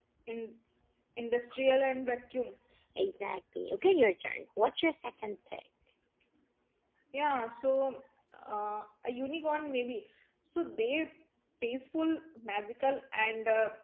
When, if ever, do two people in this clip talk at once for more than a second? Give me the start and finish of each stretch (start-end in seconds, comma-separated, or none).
none